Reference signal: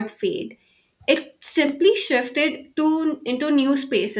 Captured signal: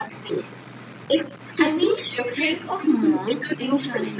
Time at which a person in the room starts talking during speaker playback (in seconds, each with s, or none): 1.6 s